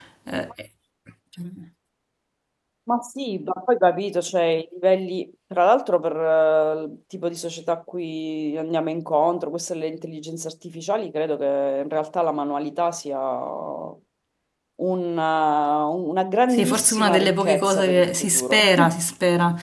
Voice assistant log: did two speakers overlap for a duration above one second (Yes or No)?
Yes